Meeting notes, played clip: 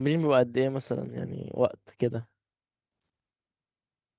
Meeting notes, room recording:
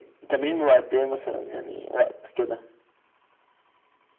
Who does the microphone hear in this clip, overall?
echo only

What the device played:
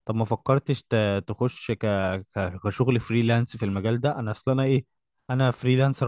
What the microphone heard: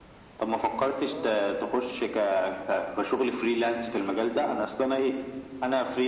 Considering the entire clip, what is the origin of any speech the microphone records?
both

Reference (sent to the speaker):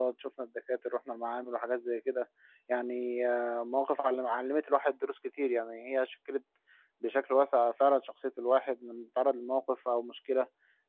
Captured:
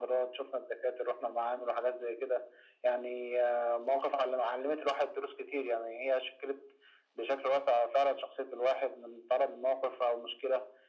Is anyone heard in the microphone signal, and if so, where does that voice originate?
echo only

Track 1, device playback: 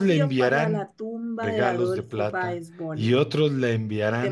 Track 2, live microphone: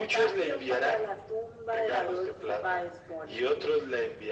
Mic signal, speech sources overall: echo only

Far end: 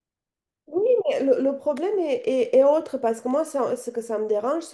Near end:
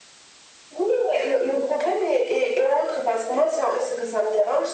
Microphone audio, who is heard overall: echo only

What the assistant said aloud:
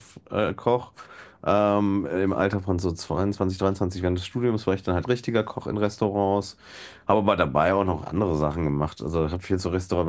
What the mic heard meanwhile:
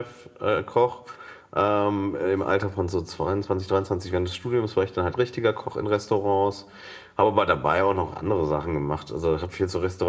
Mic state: echo only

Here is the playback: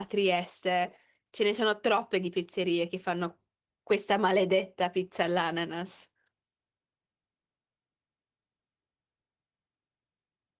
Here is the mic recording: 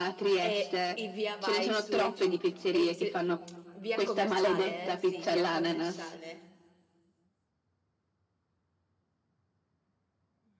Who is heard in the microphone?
both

